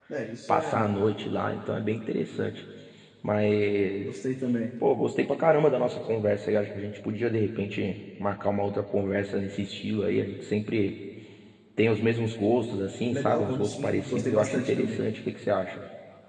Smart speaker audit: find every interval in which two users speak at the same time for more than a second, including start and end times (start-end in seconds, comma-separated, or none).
13.1-15.0